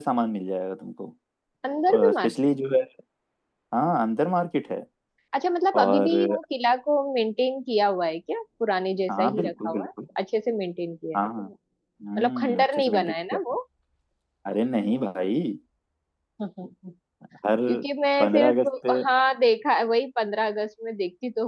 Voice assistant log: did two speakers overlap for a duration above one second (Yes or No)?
Yes